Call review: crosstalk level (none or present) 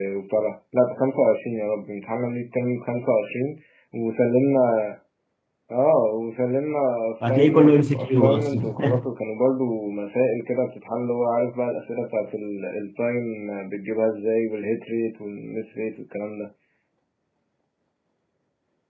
present